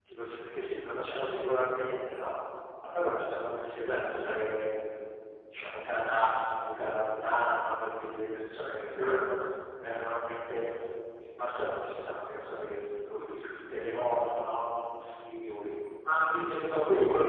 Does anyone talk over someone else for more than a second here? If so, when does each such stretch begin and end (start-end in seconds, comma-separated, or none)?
none